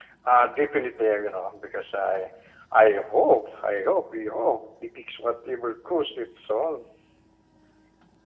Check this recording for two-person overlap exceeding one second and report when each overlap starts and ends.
none

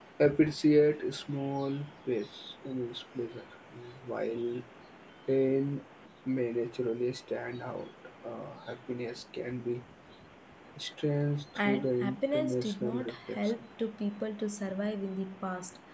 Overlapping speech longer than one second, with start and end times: 11.6-13.4

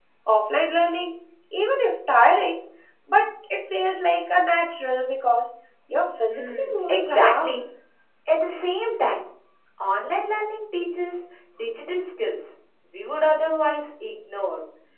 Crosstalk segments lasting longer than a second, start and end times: 6.3-7.6

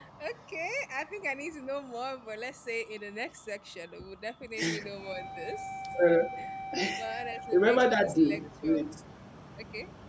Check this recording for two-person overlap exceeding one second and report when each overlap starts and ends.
7.5-8.8

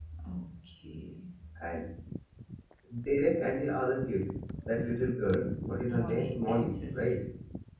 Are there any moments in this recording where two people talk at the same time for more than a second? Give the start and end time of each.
5.9-7.1

